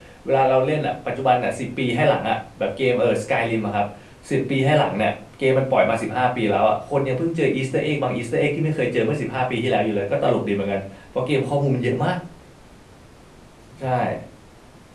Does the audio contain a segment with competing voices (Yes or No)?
No